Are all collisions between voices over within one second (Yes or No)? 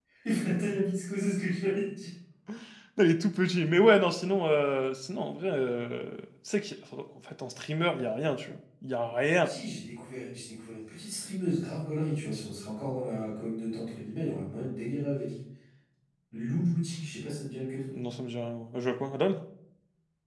Yes